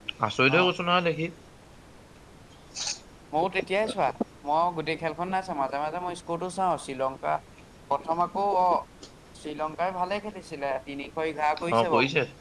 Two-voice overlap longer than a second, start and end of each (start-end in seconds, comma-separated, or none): none